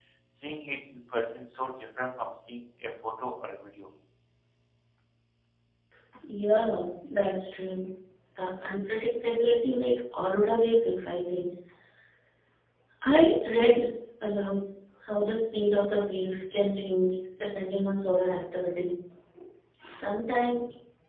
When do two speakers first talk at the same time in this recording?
none

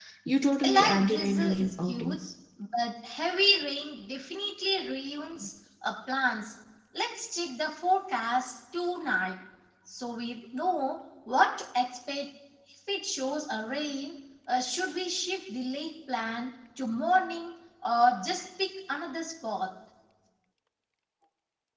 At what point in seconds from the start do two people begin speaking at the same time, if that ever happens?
0.6 s

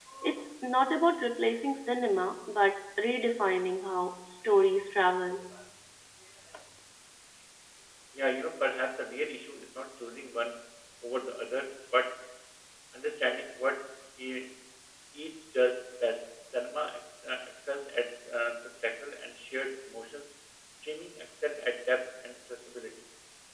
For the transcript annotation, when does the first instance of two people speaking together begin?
none

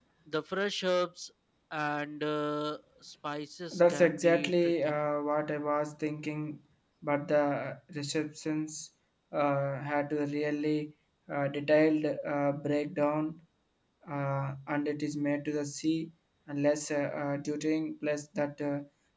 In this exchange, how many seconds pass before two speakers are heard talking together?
3.7 s

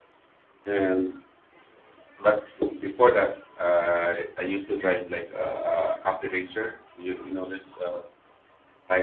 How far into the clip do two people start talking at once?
none

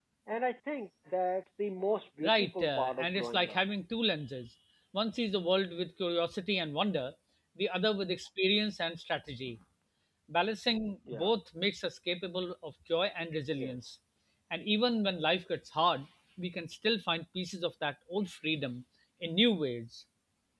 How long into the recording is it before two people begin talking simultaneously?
2.2 s

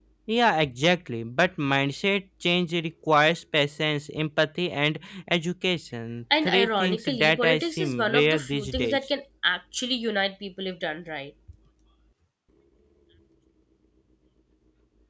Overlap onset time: 6.3 s

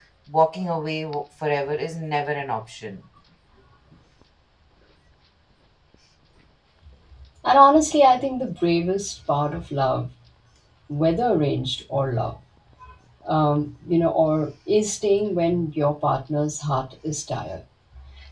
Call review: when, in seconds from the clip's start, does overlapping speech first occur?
none

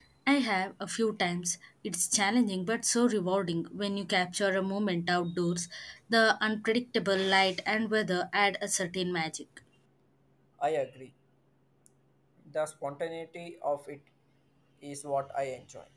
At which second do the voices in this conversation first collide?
none

